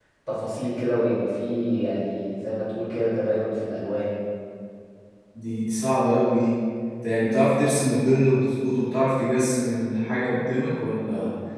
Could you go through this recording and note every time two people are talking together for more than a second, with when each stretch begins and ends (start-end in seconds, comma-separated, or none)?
none